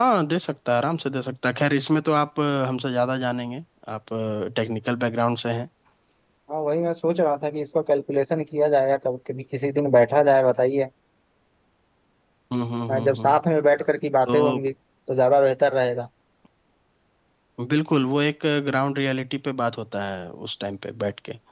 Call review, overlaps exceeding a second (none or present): none